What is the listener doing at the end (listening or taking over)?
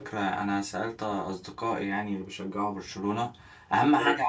listening